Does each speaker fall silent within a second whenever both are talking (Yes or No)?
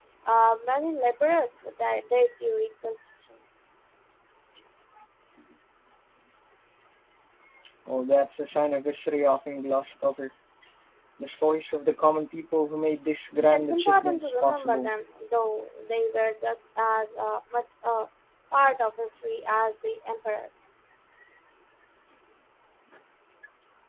No